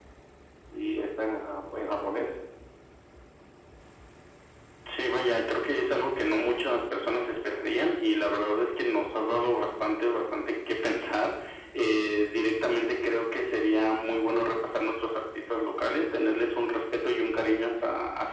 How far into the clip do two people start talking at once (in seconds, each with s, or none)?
none